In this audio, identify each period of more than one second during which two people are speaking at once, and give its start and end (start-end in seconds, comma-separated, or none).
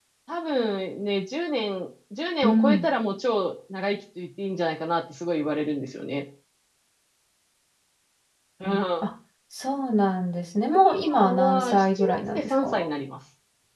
10.9-12.9